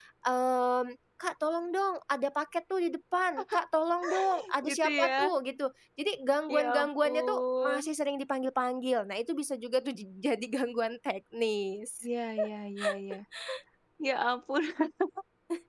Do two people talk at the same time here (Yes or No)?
Yes